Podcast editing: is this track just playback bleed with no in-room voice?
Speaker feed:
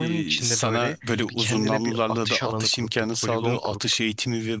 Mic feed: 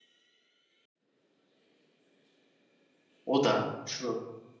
No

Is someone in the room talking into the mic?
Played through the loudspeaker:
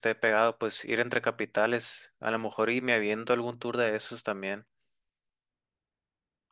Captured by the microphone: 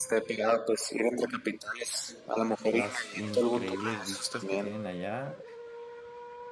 Yes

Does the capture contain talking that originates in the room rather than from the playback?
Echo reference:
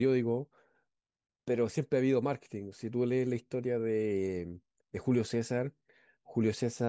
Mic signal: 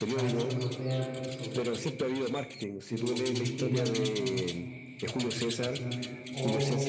Yes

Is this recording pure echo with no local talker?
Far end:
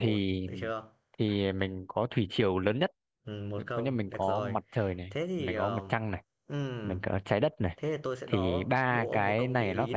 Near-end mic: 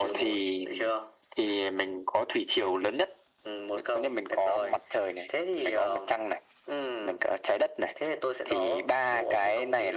Yes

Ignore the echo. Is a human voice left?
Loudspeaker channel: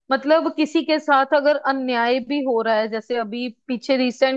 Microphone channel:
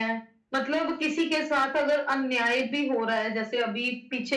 No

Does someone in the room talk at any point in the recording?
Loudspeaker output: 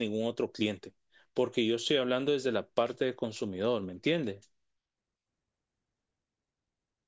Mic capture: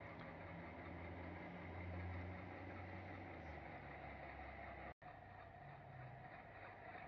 No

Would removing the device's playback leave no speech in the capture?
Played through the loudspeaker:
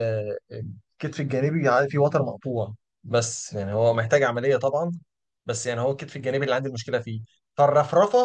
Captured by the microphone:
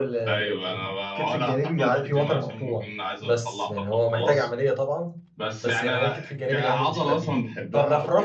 No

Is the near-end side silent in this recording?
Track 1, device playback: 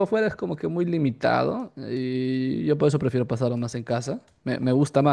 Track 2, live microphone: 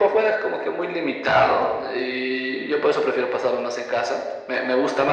Yes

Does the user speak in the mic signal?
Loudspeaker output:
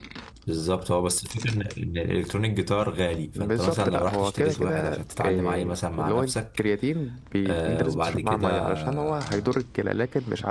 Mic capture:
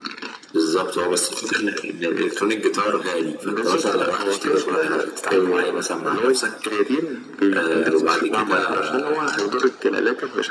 No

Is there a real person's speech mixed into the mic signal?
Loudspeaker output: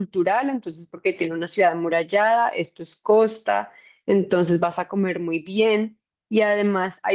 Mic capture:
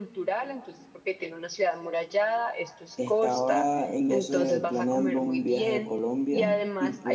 Yes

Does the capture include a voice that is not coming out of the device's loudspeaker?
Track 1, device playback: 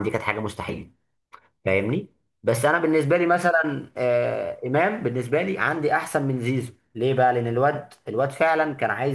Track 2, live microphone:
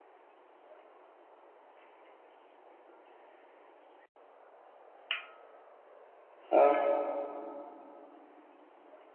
Yes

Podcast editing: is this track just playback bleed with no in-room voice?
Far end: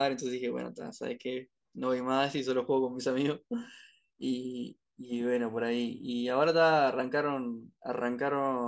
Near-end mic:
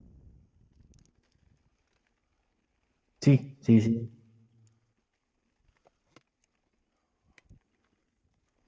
No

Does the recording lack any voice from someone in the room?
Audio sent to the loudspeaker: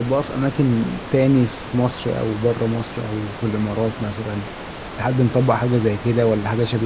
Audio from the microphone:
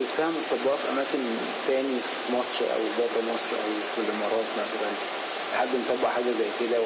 Yes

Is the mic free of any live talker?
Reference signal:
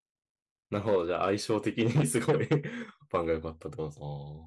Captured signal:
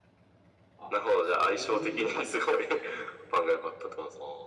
No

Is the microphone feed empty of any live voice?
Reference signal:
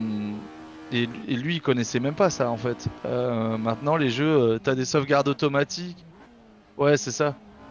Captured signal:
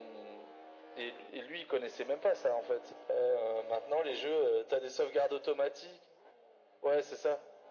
Yes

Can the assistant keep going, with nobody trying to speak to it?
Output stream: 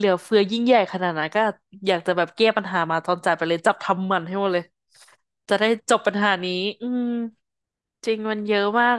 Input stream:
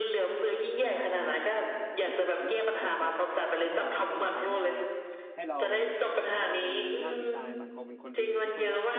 No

